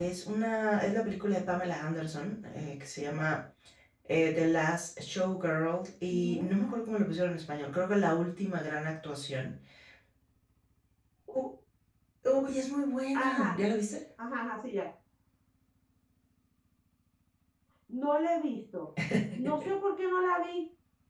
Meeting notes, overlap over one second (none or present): none